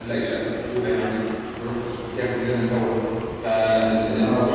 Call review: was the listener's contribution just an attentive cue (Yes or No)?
Yes